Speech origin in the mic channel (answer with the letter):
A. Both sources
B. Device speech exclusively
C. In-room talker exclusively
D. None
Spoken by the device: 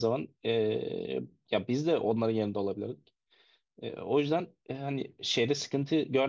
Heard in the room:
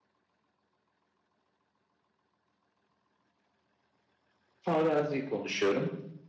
C